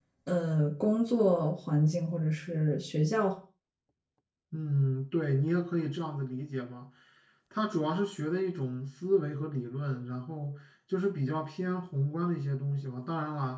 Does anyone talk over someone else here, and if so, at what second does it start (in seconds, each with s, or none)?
none